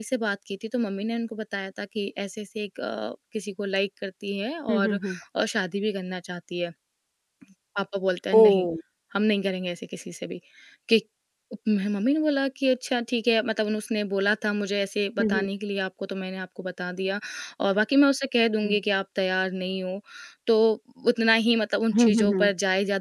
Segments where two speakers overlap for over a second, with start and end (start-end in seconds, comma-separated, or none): none